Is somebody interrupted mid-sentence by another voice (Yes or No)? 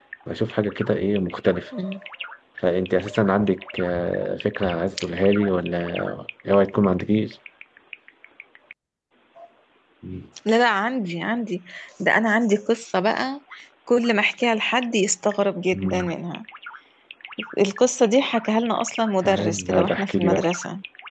Yes